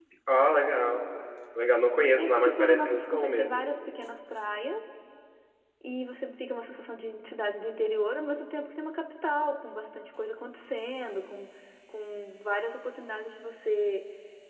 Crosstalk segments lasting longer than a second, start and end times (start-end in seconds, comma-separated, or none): 2.1-3.6